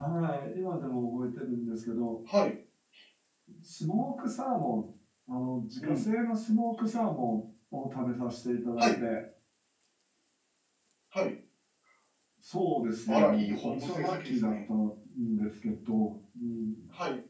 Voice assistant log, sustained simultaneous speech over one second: present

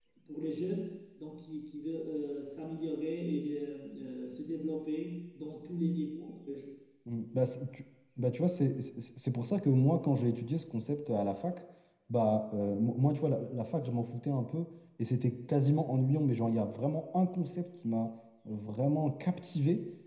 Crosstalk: none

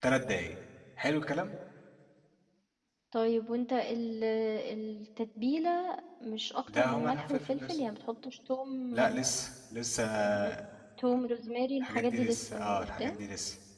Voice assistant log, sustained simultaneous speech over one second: present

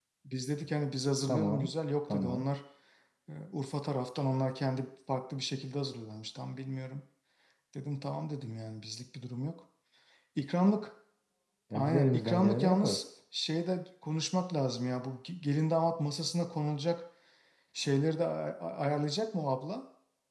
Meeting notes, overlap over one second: present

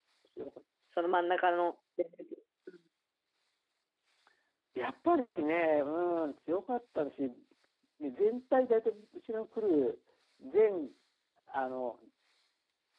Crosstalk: none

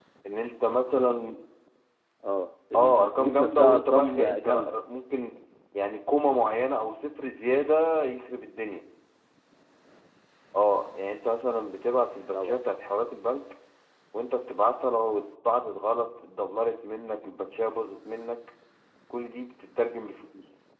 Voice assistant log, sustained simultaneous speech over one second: present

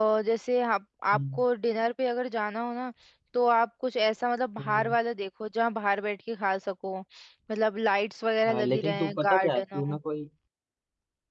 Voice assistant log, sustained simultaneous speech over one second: present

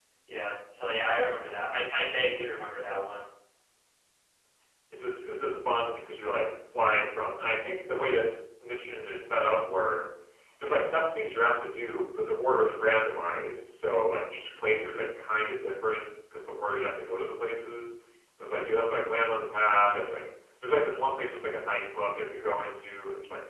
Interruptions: none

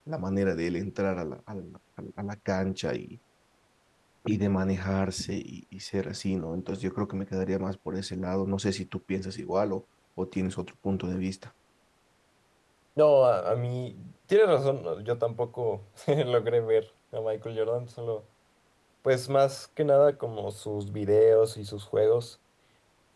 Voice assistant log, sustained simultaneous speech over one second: none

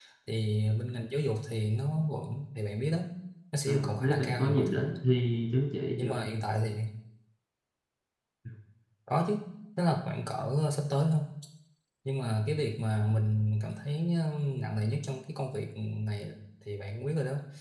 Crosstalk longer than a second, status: present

